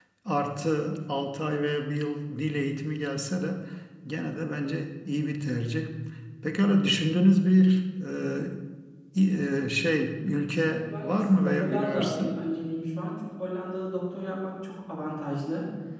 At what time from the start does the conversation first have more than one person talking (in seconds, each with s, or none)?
10.7 s